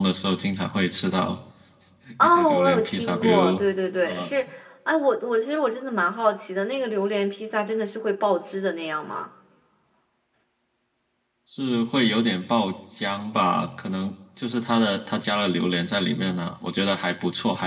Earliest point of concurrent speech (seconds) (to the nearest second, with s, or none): 2 s